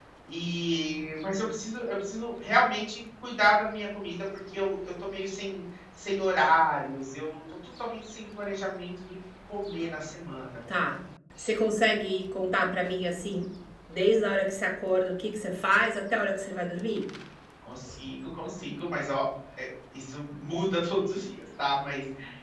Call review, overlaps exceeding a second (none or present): none